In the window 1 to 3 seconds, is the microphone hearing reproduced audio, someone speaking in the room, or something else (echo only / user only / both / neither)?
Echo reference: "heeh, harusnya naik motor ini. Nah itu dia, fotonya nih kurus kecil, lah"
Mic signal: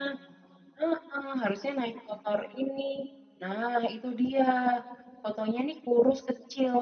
echo only